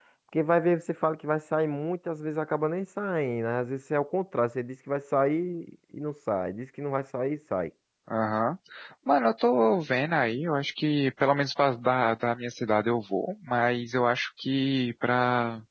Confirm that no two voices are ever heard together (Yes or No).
Yes